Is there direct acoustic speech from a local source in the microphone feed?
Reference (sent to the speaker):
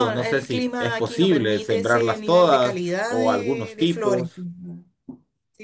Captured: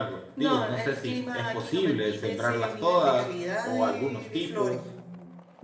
No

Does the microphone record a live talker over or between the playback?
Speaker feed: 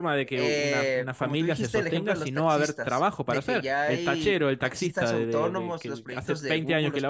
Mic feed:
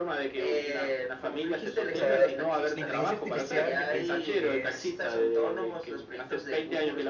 Yes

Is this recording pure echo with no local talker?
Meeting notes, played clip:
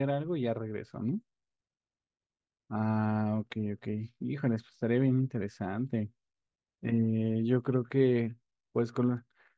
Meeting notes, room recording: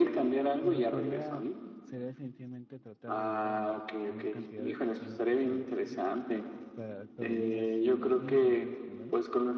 No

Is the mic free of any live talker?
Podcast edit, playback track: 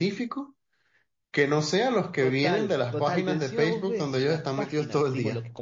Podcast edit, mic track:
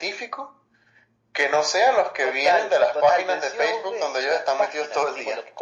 Yes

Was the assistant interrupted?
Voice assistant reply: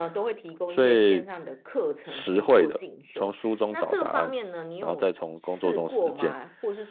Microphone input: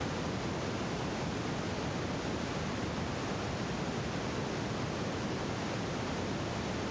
No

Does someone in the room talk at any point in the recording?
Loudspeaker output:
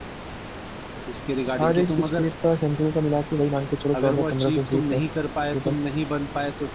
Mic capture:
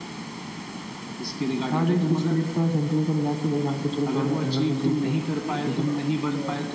Yes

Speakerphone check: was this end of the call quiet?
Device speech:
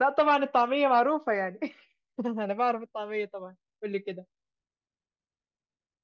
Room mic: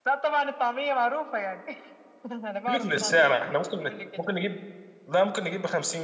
No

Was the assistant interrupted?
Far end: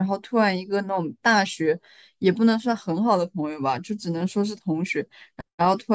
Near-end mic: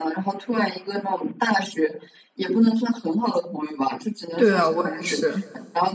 Yes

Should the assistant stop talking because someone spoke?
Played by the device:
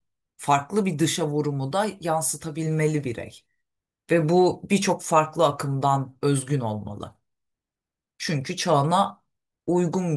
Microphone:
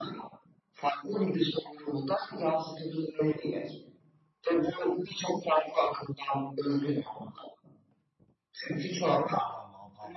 Yes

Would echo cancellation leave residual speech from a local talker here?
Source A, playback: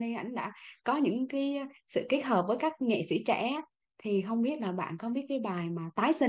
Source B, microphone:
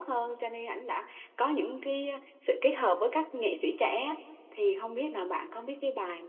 No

